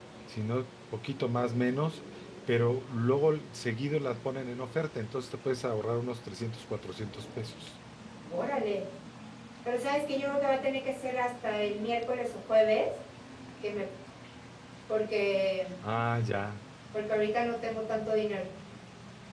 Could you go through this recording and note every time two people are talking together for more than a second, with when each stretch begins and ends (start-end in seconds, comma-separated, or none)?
none